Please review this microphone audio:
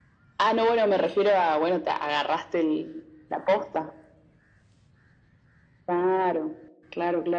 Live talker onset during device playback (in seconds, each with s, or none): none